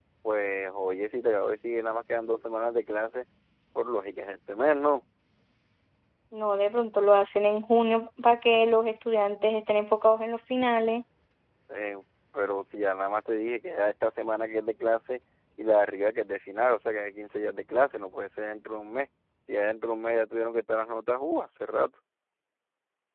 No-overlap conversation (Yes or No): Yes